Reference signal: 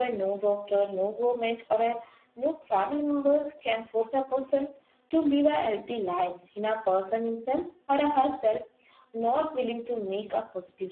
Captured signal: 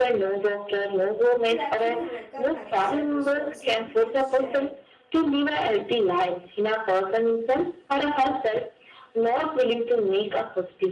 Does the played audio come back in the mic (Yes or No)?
Yes